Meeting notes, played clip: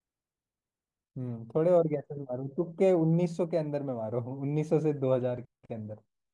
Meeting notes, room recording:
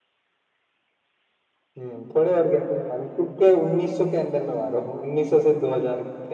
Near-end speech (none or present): none